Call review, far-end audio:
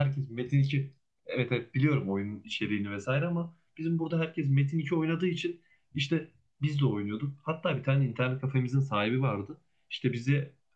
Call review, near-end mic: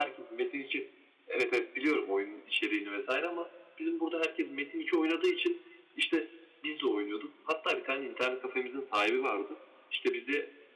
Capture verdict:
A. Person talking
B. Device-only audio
B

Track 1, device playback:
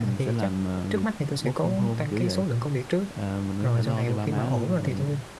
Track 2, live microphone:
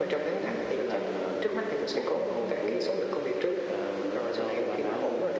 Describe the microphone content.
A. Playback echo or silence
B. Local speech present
A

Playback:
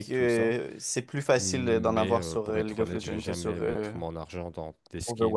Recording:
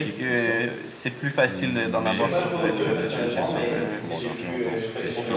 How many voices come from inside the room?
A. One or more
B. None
A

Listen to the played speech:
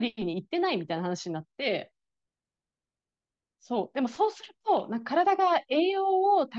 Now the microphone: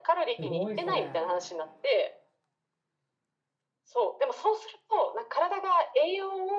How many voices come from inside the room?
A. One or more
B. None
A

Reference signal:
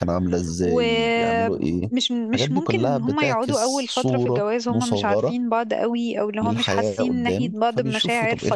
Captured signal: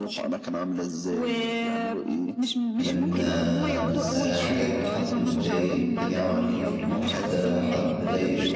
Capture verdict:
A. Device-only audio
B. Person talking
B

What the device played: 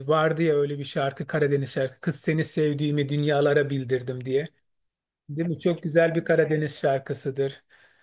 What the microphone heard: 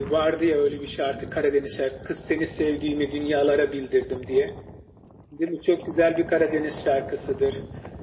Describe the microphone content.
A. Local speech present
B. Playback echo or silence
B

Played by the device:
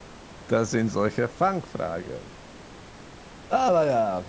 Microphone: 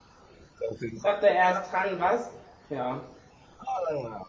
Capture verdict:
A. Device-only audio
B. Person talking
B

